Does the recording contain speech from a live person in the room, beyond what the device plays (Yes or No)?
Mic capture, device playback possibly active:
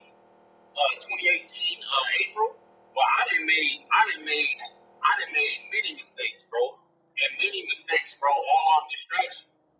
No